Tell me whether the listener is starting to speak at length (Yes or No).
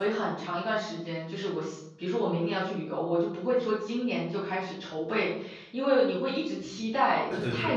No